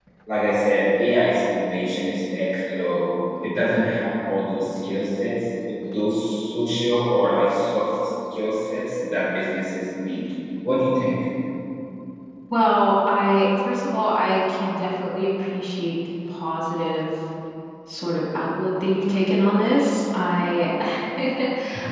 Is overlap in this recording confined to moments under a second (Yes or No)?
Yes